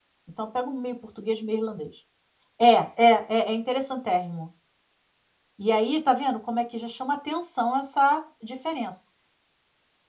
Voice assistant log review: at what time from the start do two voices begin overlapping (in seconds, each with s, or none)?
none